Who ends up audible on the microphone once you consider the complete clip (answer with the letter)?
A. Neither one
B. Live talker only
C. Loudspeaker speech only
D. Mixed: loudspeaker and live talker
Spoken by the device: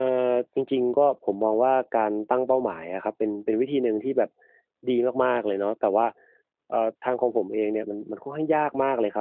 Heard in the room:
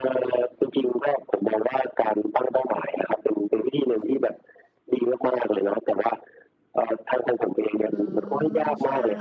D